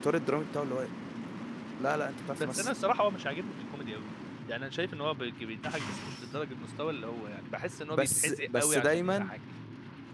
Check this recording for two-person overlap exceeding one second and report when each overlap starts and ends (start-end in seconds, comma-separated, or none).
7.9-9.3